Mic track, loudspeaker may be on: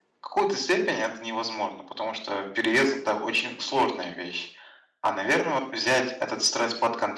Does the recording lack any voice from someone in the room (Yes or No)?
No